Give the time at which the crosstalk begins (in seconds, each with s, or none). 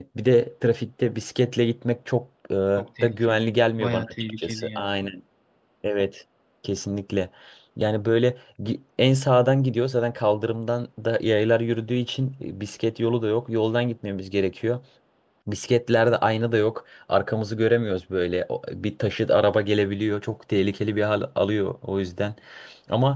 3.0 s